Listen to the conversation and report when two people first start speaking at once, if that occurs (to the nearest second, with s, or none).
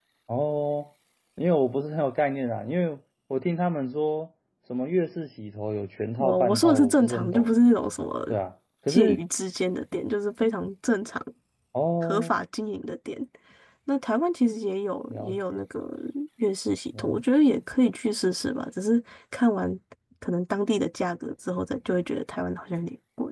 6 s